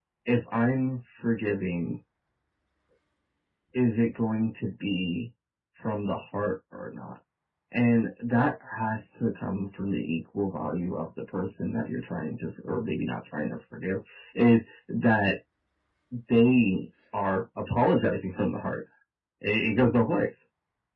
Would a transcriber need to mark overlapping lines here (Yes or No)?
No